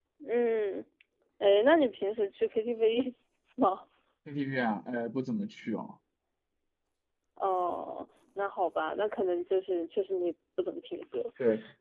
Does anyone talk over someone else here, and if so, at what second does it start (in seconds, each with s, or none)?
none